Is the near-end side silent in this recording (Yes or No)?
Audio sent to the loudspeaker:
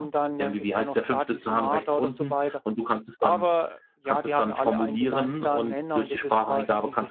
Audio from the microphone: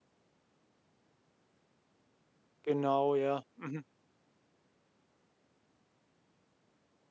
No